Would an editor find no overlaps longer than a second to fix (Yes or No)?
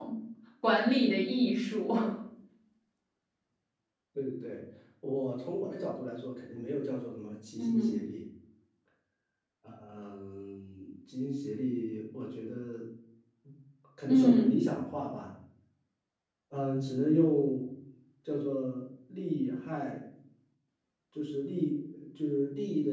Yes